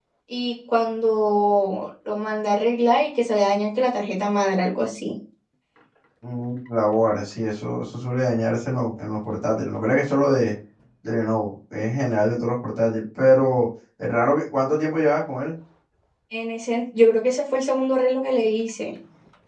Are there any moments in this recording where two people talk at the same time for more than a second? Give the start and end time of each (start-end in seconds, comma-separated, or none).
none